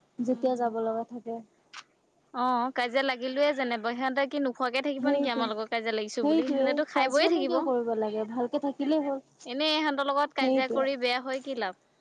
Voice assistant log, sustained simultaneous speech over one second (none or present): present